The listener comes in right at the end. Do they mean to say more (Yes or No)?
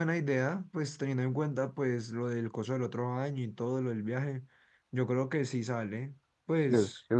Yes